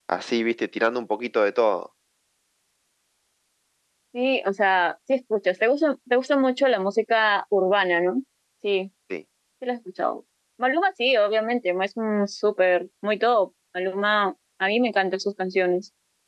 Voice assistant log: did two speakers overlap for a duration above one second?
No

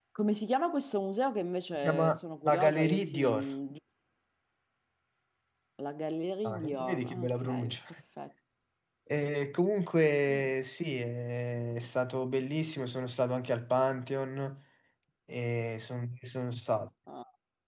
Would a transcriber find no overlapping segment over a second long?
No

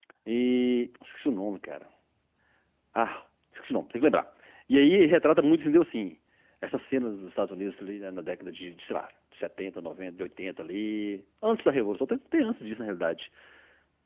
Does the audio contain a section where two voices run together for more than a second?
No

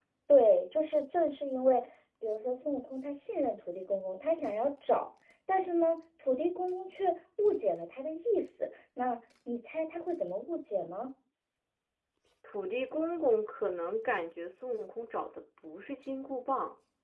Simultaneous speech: No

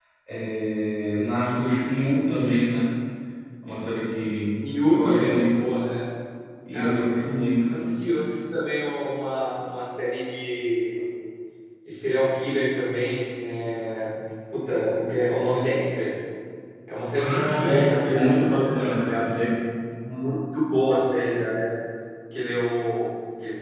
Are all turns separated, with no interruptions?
No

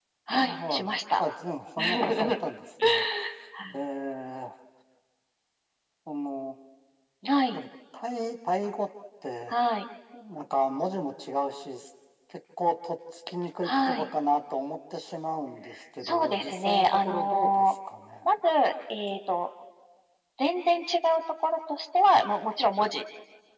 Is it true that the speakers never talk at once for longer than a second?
No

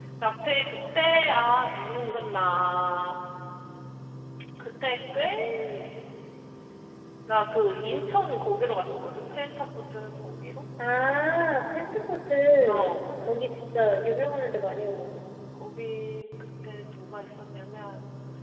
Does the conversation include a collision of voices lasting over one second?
No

